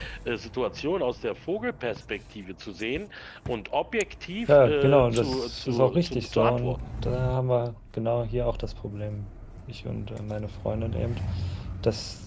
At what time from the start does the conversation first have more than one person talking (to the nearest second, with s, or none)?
4 s